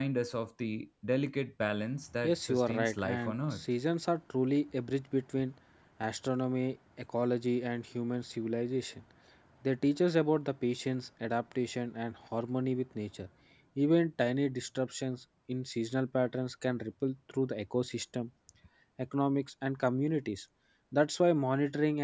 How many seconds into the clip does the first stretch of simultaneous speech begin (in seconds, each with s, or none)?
2.2 s